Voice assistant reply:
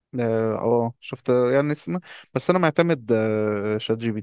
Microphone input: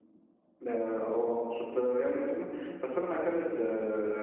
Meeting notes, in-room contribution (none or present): none